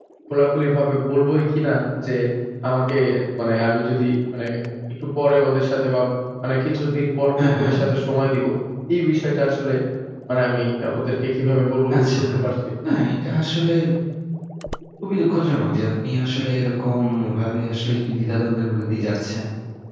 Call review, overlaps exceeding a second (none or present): none